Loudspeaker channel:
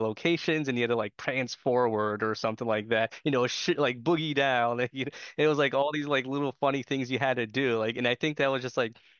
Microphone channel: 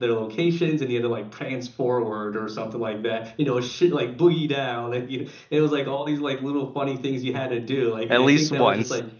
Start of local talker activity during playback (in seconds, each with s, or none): 8.1 s